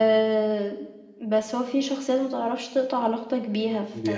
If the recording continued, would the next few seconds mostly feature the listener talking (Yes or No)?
No